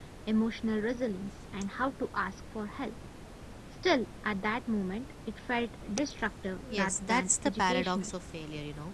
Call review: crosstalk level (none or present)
present